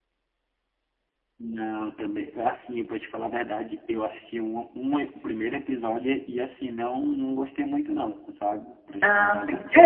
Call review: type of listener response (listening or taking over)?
taking over